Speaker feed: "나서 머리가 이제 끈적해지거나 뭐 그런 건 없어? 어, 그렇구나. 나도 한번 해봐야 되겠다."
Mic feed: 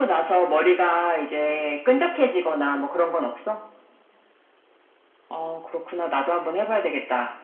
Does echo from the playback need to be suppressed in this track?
Yes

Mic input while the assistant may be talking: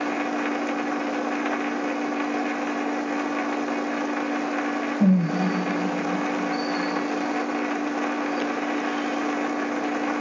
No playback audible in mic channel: Yes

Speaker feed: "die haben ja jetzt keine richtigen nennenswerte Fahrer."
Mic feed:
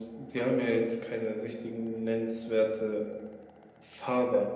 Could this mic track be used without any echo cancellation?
No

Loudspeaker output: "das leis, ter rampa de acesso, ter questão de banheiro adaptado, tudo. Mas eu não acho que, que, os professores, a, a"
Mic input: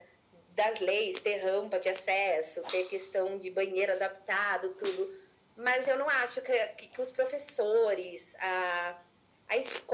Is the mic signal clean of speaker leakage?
No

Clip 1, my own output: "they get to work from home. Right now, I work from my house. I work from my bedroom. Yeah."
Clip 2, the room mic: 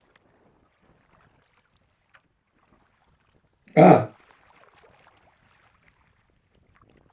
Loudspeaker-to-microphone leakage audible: No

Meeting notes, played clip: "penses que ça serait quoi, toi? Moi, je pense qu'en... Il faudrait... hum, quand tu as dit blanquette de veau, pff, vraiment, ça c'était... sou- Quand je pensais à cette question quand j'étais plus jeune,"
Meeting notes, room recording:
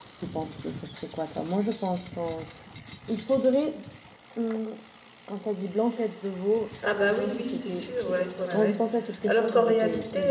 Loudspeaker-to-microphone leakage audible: Yes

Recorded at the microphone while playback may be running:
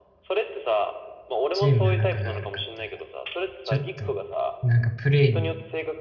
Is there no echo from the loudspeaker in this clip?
No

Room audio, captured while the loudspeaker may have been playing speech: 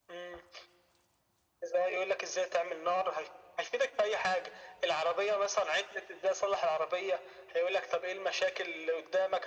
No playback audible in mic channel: No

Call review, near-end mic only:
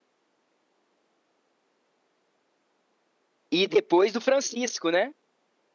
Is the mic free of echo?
Yes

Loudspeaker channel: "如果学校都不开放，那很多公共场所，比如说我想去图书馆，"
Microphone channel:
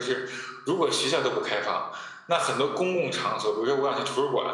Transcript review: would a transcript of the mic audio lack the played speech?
No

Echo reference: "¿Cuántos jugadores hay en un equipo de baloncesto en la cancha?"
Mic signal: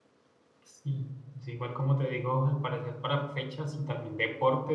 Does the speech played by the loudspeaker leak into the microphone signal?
No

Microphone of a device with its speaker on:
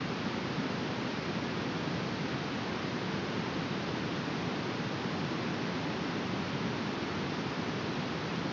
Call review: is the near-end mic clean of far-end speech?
Yes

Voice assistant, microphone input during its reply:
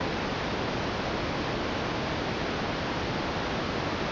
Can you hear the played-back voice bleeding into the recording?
No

